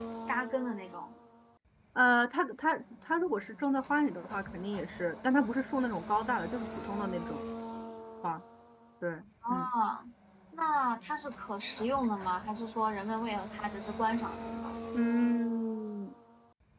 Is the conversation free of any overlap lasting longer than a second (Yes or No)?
Yes